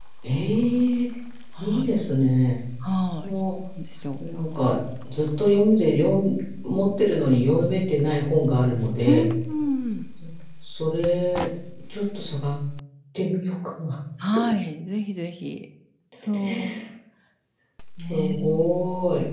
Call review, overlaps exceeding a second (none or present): none